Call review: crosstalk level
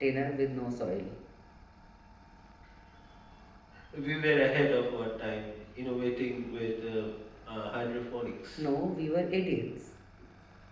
none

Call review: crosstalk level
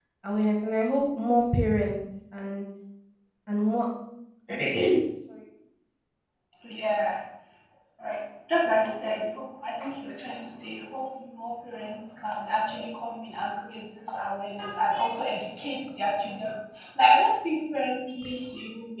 none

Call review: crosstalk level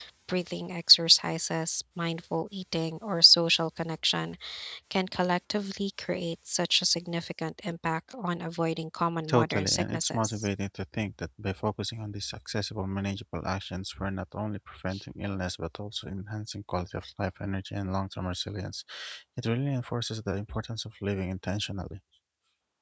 present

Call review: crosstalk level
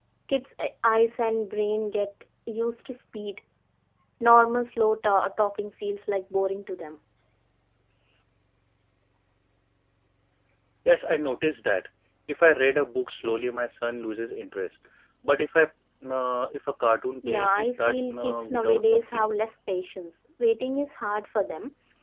present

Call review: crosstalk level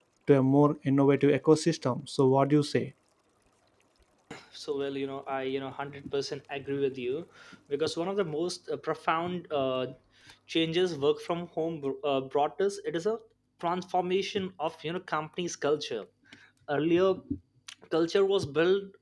none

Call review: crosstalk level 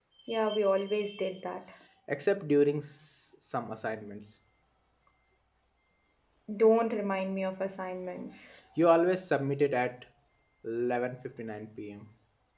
none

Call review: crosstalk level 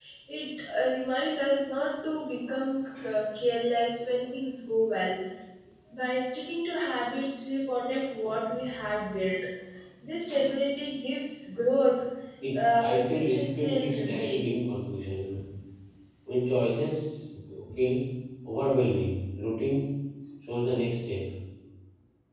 present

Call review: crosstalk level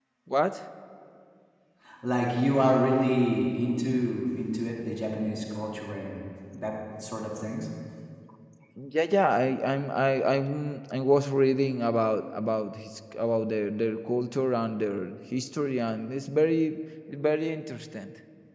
none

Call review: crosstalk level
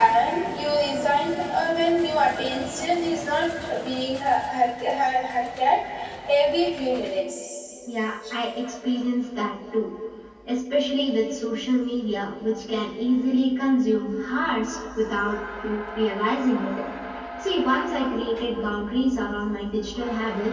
none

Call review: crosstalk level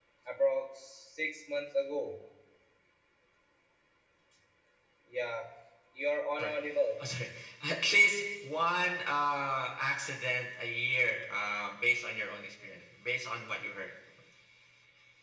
none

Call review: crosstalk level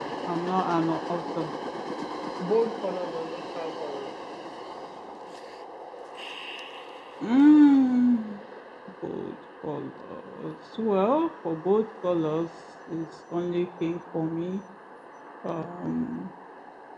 none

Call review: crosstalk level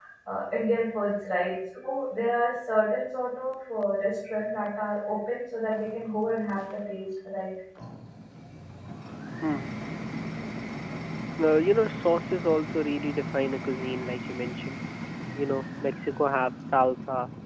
none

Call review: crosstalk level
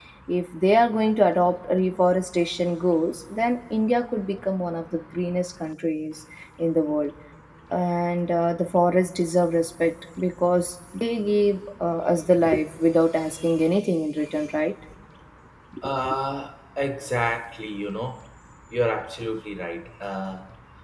none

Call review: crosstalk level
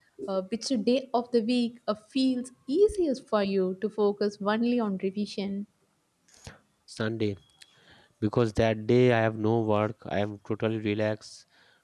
none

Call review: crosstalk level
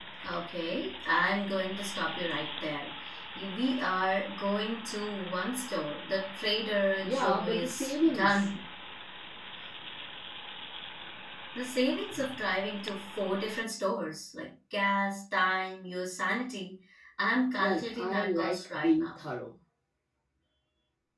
present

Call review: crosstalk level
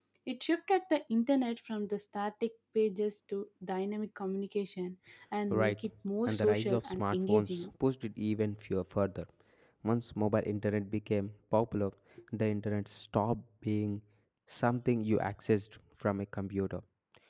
present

